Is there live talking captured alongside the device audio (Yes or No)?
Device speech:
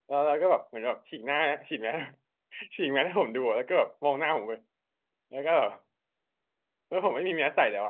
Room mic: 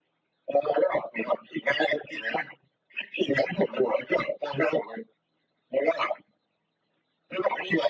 No